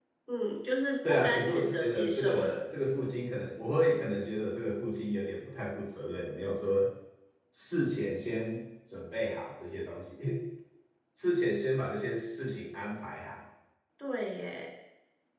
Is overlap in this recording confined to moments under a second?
No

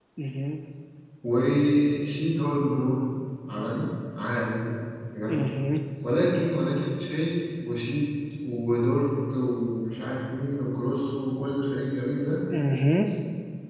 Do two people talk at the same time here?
No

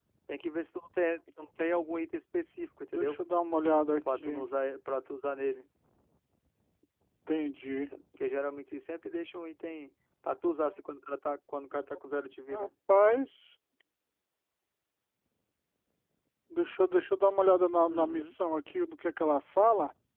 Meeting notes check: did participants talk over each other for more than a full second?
No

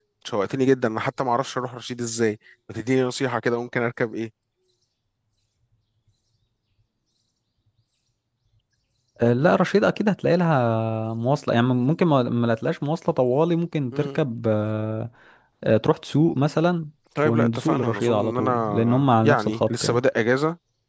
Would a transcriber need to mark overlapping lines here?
Yes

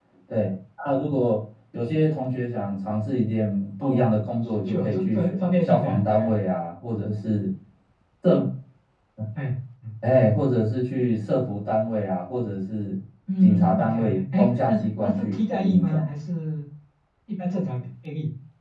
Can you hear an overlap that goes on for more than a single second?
Yes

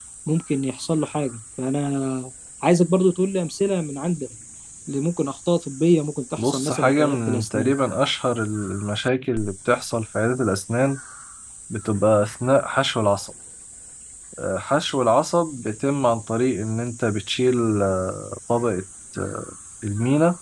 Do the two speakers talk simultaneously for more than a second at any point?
Yes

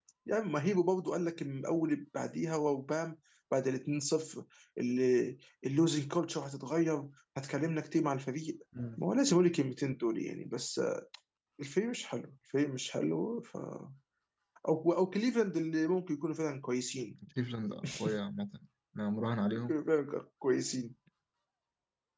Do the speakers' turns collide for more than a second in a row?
No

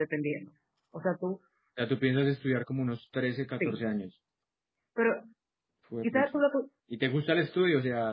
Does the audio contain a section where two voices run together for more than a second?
No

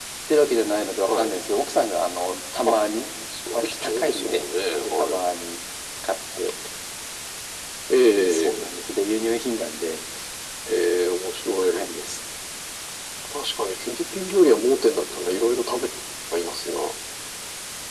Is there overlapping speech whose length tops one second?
Yes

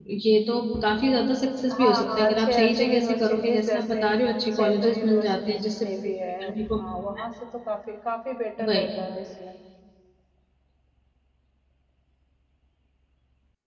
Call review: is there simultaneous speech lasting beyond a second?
Yes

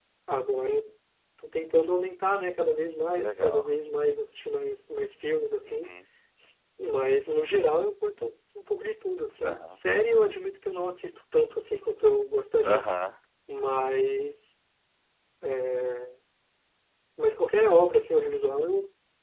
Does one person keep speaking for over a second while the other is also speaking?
No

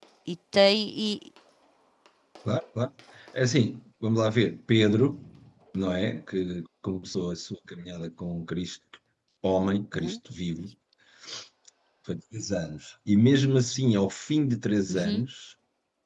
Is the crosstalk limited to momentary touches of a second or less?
Yes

